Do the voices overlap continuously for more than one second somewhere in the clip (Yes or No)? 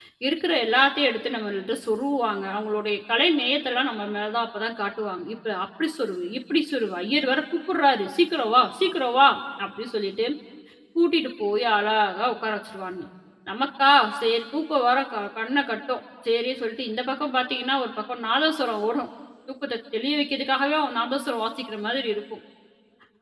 No